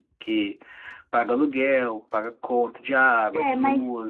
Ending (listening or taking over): taking over